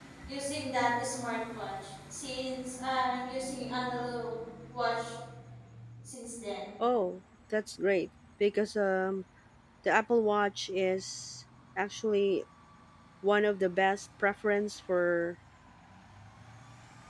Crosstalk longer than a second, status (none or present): none